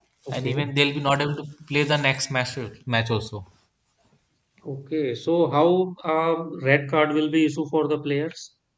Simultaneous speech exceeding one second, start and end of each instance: none

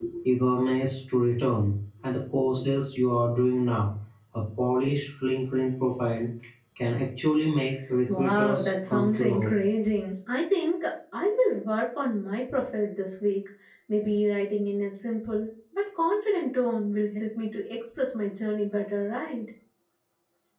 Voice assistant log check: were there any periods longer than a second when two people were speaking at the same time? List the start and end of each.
8.1-9.5

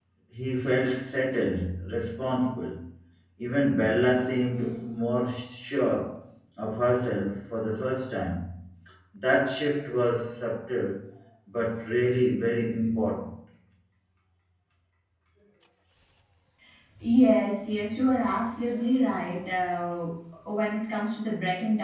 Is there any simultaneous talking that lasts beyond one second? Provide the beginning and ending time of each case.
none

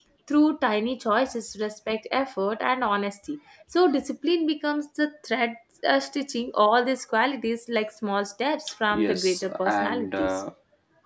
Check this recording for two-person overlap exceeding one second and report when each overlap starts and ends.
8.9-10.4

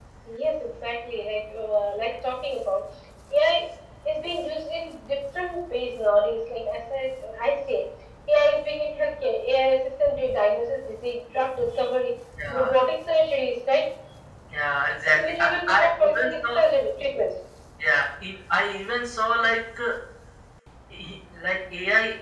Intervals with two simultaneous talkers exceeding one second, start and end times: 15.1-16.3

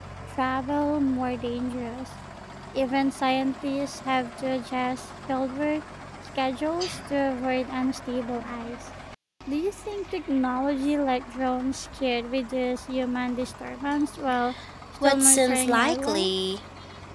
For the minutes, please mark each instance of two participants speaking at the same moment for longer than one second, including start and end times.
15.0-16.3

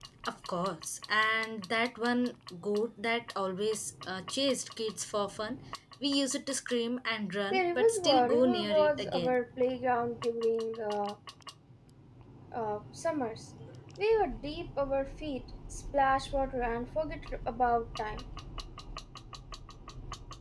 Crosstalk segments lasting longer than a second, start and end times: 7.5-9.4

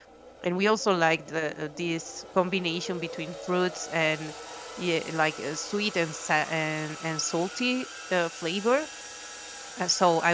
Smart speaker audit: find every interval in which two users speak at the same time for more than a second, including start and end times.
none

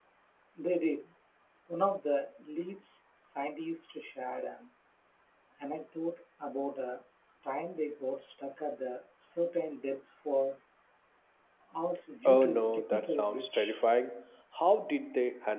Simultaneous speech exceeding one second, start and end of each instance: 12.2-13.8

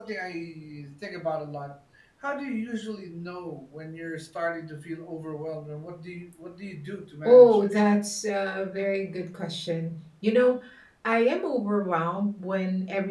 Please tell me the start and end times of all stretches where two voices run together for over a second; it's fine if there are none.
none

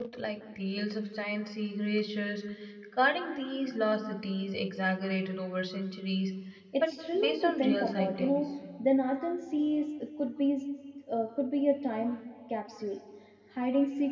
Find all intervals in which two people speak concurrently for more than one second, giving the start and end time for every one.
6.8-8.4

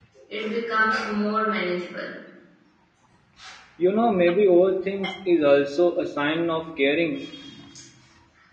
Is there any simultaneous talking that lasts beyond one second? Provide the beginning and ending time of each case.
none

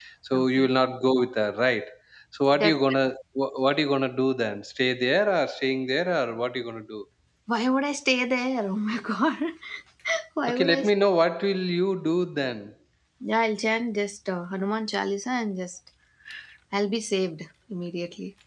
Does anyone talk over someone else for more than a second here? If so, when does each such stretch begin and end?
none

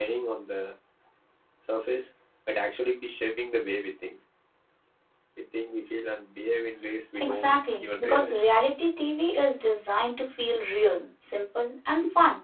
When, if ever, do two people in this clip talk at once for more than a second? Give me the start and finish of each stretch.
7.2-8.4

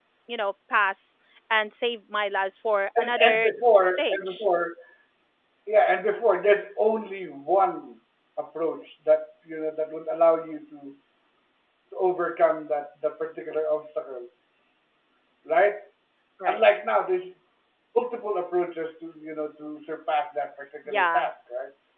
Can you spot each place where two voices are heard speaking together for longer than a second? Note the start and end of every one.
3.0-4.5

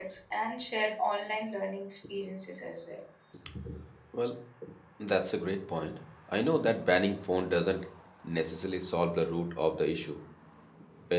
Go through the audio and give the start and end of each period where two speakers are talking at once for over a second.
none

